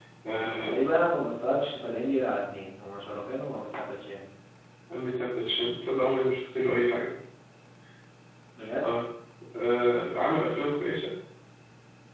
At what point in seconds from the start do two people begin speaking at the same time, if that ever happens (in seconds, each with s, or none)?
none